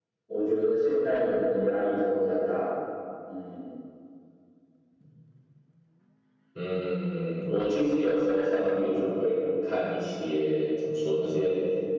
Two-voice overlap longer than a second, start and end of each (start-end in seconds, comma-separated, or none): none